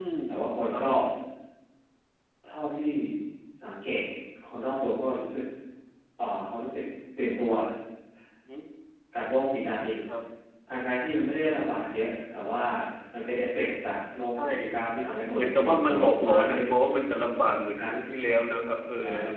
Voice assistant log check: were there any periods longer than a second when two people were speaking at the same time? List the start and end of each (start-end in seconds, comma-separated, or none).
15.3-16.6